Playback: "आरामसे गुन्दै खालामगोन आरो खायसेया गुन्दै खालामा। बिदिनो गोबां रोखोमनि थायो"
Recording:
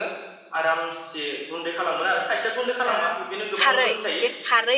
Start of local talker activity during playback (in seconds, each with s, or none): 2.9 s